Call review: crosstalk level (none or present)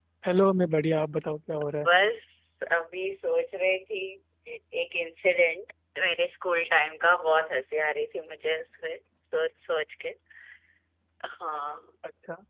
none